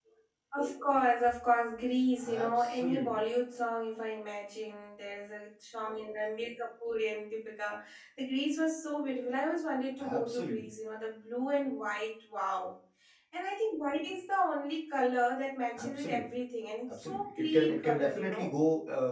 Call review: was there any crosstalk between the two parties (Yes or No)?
Yes